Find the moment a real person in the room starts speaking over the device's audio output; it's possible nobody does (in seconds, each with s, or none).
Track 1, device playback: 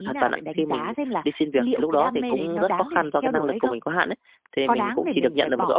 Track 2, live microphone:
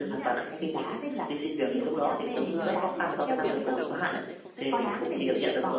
2.3 s